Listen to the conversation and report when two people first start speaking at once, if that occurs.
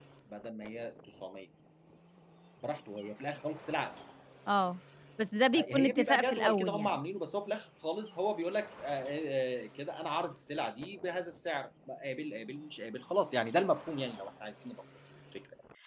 5.5 s

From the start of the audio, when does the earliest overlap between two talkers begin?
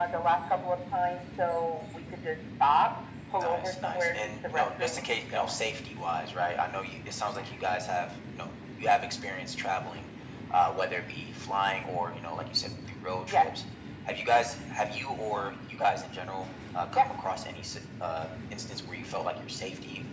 3.4 s

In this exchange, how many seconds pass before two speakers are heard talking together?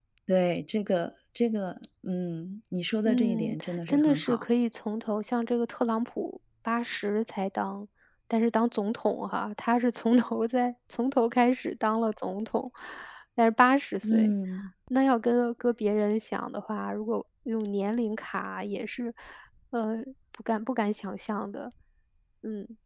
3.0 s

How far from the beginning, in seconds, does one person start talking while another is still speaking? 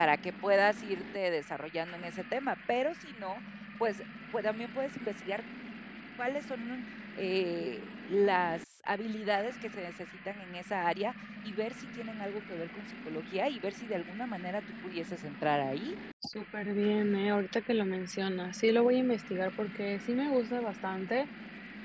none

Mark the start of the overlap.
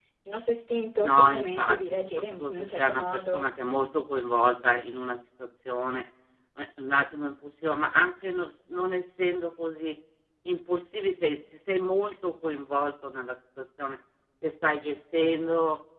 1.0 s

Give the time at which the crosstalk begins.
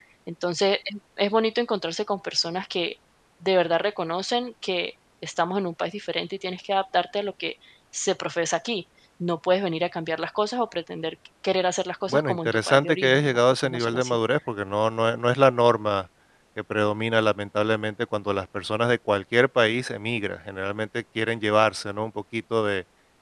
12.1 s

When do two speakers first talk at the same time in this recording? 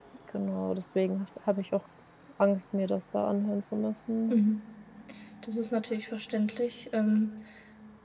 none

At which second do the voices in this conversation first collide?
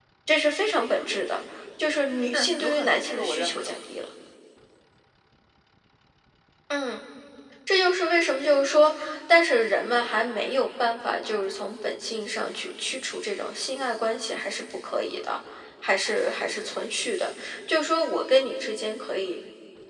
2.3 s

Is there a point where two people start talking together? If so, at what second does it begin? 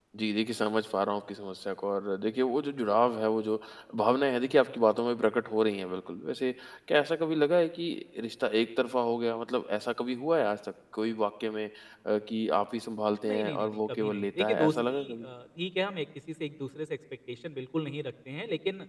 13.2 s

